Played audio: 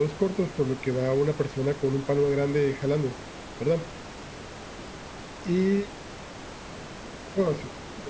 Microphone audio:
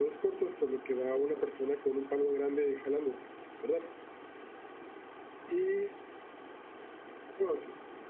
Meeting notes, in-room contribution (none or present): present